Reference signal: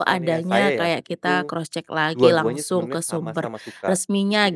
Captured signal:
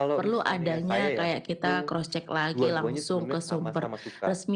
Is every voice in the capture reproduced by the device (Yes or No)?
Yes